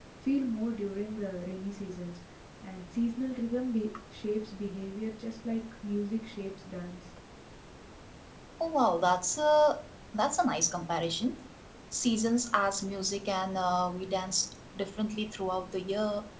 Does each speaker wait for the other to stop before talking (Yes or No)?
Yes